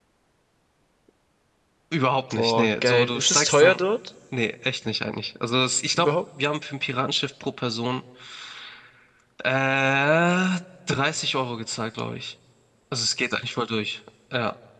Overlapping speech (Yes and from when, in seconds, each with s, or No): Yes, from 2.3 s